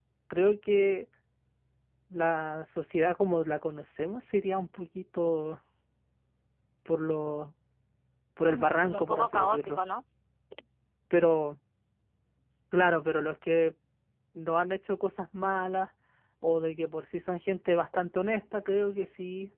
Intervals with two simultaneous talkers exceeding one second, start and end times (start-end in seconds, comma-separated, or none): 8.5-9.8